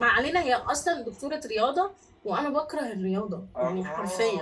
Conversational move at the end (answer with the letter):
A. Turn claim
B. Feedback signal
A